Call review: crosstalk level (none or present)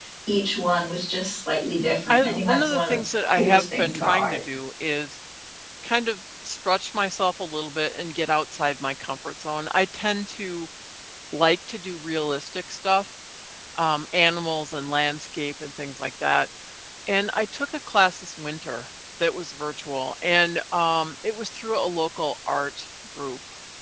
present